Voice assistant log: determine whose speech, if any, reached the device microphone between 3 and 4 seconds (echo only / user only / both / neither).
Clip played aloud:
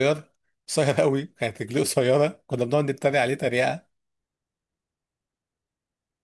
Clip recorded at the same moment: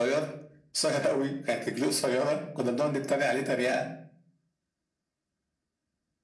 echo only